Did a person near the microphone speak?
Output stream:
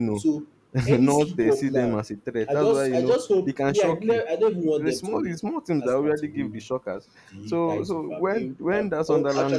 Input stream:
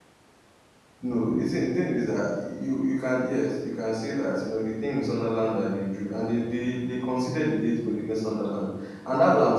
Yes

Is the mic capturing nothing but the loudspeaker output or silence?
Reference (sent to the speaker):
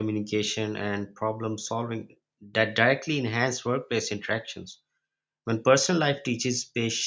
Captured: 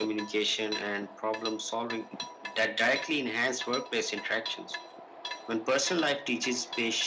Yes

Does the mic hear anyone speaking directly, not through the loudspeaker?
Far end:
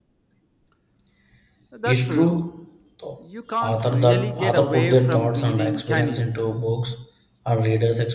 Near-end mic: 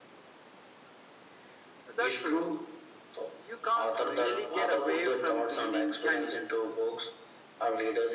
No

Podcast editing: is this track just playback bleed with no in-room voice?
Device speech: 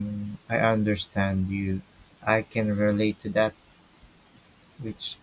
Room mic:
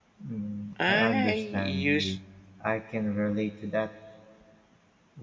No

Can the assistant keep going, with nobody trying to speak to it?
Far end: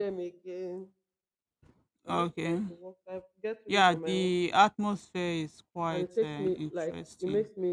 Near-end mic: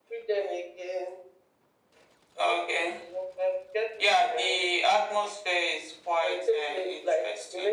Yes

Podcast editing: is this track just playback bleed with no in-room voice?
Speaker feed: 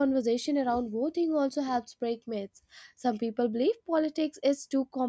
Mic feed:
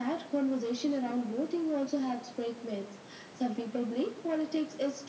Yes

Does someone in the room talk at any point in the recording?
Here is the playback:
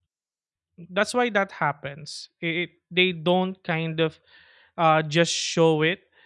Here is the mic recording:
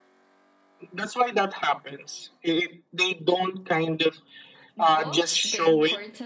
Yes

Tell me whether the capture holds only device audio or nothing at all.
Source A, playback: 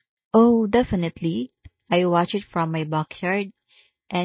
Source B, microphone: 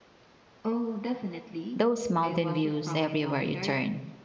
No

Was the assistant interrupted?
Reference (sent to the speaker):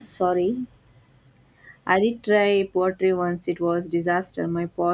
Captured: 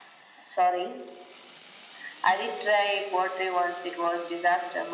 No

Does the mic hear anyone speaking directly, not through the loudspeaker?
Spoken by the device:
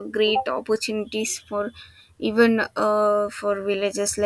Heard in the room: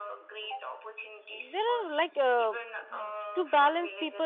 Yes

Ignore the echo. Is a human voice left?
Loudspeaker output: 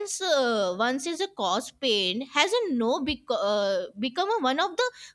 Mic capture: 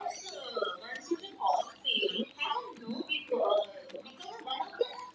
No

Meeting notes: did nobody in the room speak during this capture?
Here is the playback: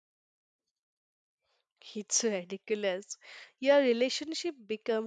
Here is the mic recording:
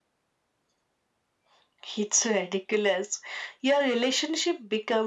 Yes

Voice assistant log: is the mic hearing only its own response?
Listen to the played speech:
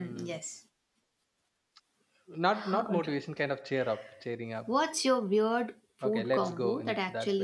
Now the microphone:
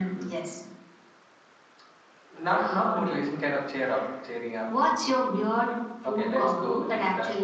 No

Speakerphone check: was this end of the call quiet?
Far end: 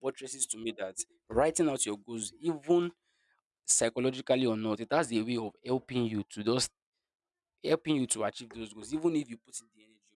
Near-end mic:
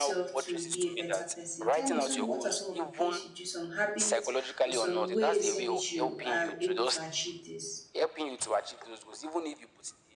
No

